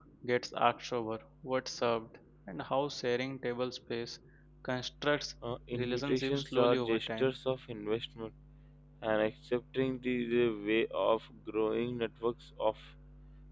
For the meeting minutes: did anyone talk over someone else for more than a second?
Yes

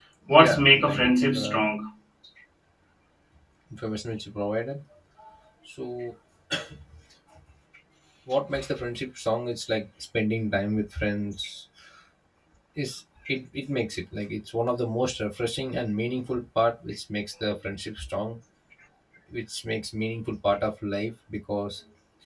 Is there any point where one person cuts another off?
Yes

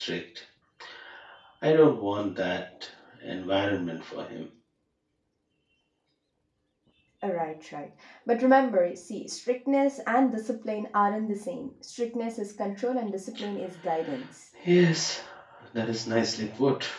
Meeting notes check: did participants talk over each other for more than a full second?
No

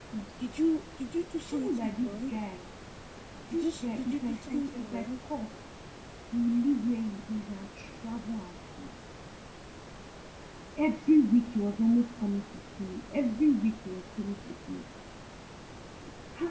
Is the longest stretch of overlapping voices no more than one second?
No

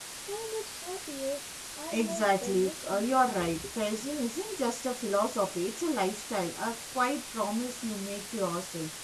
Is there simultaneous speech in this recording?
Yes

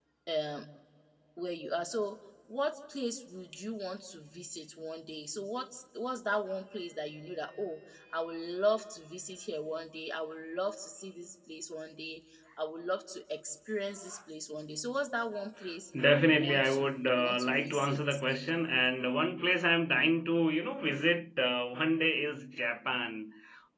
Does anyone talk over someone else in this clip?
Yes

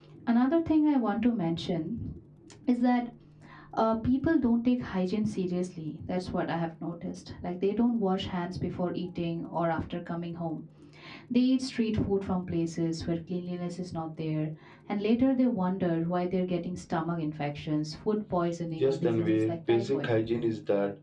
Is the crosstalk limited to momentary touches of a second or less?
No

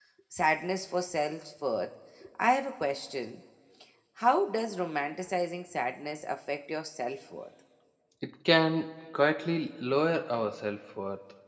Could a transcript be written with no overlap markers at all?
Yes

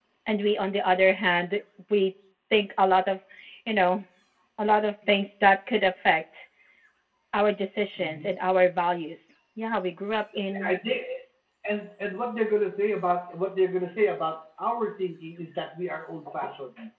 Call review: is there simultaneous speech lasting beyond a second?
No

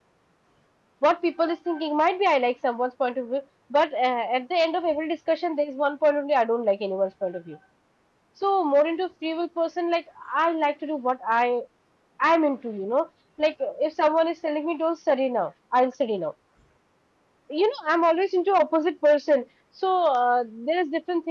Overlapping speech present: No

